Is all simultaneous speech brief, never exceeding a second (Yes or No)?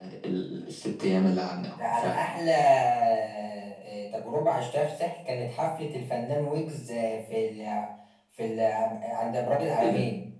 Yes